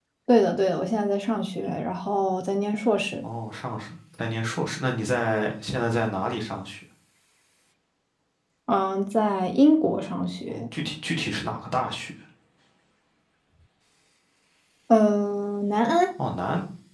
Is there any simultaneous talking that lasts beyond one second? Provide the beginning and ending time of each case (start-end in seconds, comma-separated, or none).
none